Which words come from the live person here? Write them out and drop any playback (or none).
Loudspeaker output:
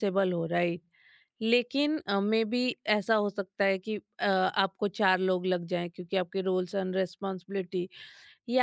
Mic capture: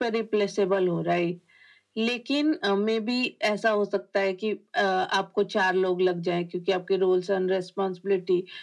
none